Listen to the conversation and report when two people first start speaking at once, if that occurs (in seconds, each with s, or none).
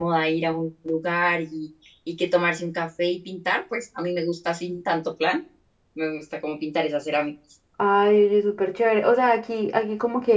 none